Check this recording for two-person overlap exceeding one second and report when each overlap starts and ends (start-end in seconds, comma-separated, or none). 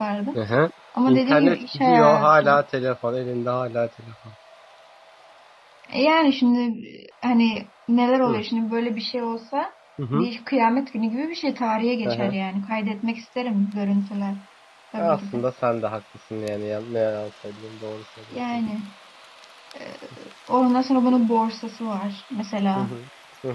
1.1-2.5